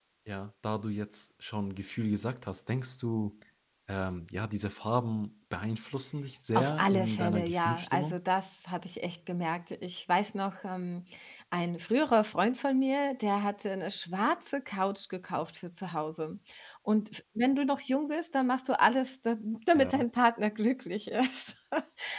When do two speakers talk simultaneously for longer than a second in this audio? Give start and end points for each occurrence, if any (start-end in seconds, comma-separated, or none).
6.6-8.2